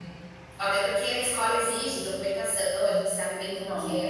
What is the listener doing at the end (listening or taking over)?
taking over